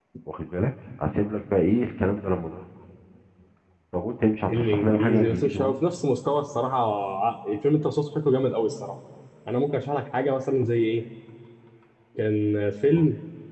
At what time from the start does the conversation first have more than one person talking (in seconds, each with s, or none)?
4.5 s